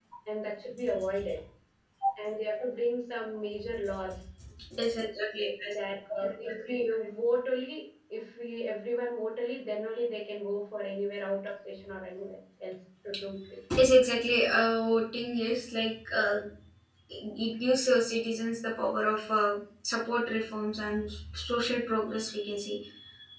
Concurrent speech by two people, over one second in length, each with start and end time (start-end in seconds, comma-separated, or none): none